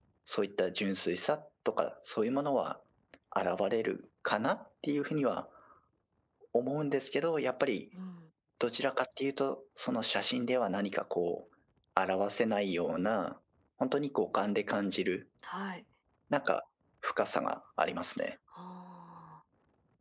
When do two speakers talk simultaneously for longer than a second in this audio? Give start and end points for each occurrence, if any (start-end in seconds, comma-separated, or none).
none